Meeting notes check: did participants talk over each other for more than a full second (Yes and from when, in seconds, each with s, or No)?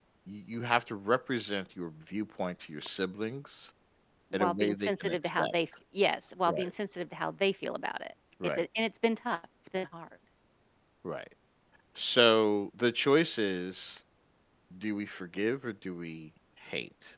Yes, from 4.3 s